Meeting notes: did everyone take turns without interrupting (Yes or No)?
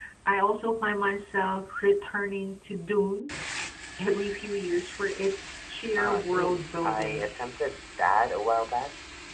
No